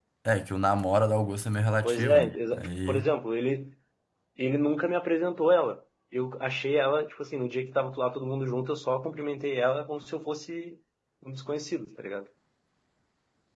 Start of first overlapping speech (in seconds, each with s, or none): 1.8 s